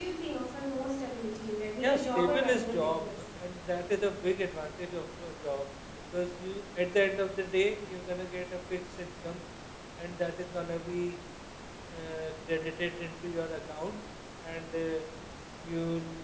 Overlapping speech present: Yes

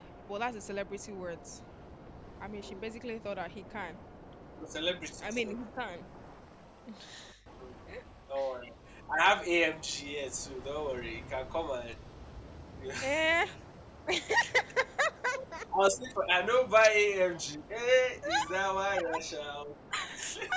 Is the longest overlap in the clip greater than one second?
No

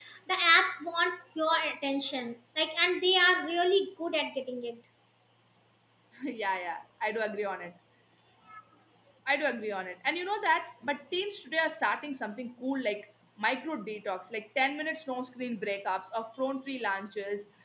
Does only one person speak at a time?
Yes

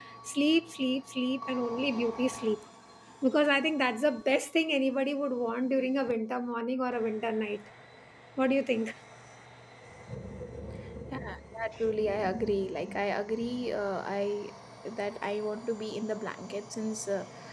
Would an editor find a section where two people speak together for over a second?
No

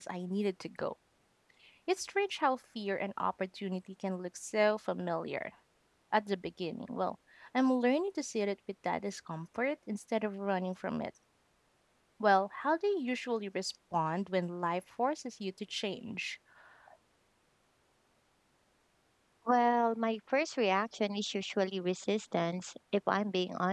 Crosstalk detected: No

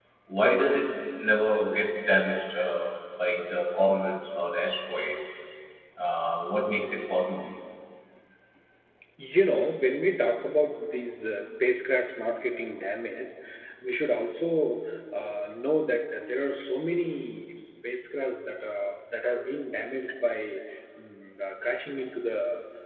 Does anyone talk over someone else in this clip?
No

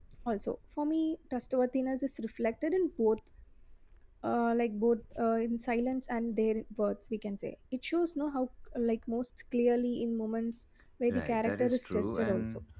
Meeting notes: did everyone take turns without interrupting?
No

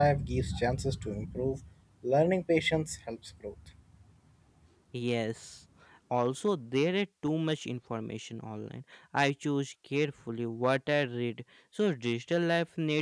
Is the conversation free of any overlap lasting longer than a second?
Yes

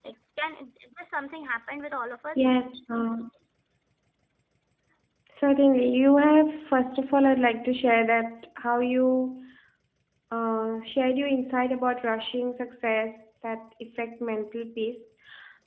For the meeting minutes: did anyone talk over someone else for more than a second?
No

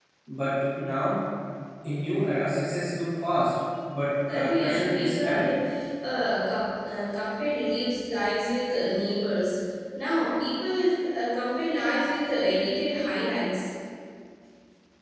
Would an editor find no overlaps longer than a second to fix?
No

